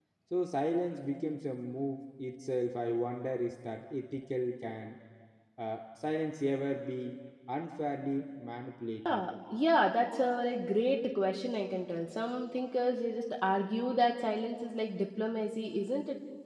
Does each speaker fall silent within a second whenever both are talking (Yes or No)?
Yes